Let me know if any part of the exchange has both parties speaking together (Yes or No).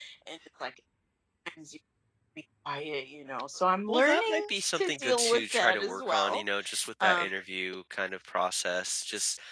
Yes